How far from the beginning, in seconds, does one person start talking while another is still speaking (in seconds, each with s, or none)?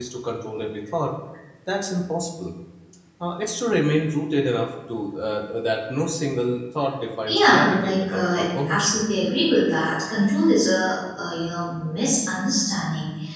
7.3 s